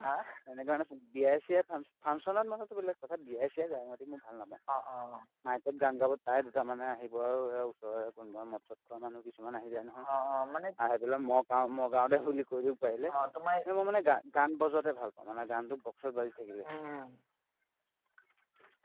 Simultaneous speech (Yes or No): No